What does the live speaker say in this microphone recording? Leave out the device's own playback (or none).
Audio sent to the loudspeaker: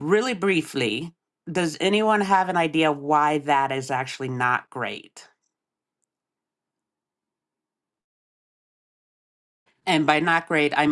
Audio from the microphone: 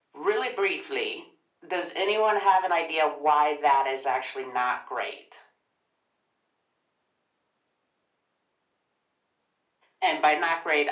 none